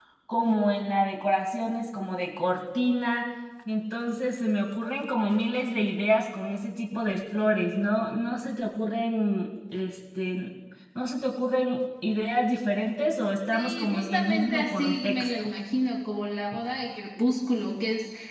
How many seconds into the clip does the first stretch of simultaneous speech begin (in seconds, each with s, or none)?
13.5 s